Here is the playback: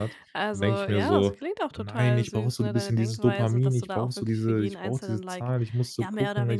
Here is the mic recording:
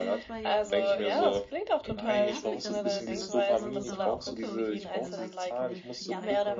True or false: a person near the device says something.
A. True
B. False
A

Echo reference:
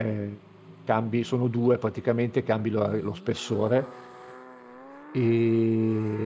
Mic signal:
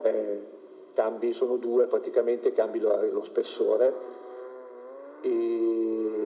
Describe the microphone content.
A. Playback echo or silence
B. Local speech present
A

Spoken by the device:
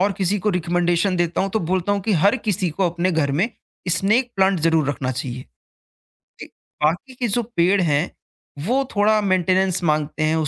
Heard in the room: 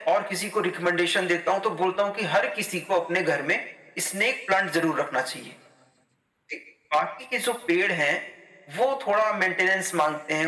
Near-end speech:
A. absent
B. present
A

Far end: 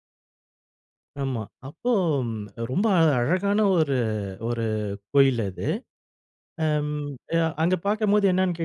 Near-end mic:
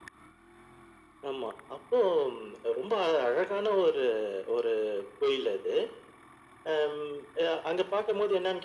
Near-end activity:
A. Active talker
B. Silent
B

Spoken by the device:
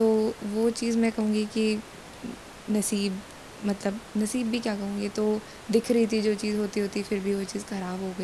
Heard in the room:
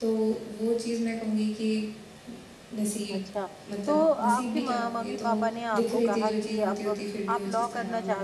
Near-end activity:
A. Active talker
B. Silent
A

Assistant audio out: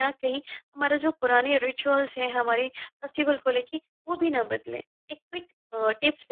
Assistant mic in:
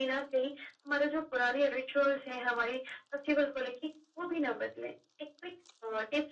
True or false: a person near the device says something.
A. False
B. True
A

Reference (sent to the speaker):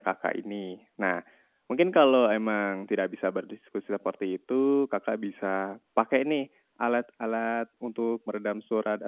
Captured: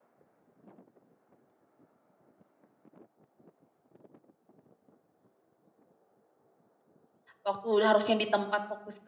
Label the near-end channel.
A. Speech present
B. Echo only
A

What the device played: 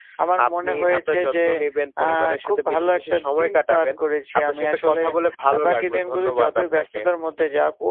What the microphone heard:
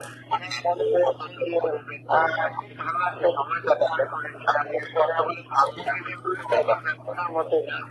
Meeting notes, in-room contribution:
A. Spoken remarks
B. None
B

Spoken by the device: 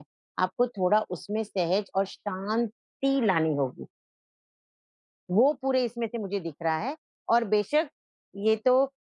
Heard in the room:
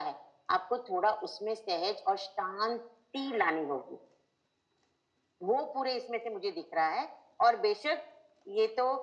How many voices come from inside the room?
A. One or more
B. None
B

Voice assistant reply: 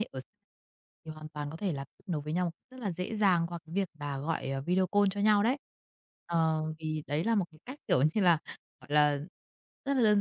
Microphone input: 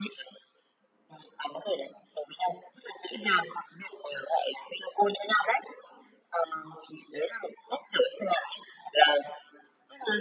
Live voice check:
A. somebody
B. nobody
B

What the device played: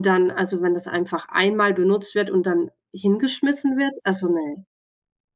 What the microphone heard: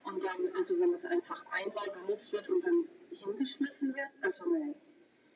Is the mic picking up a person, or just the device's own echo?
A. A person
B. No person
B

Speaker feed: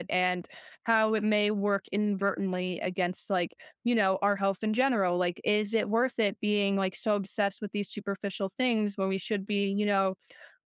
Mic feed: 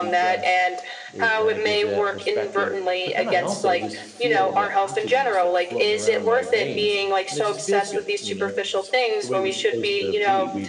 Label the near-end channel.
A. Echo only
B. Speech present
B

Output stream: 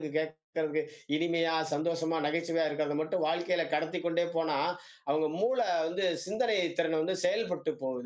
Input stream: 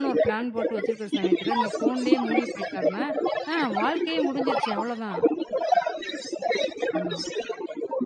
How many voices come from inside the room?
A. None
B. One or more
B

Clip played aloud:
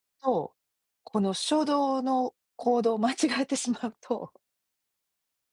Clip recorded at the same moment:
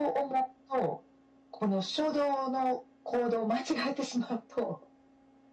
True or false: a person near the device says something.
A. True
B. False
B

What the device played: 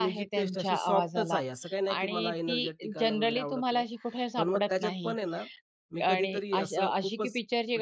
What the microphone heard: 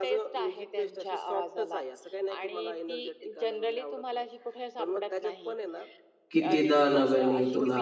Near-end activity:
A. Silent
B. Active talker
B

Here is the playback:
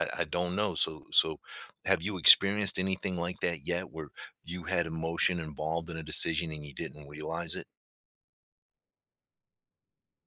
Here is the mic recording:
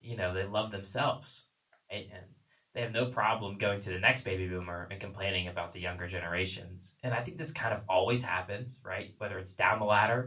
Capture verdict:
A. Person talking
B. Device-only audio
A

